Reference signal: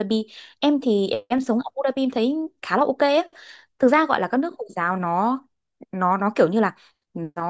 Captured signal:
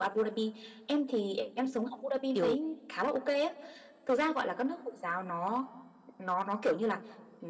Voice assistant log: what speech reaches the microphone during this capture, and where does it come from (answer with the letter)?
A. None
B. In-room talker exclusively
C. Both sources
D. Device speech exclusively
C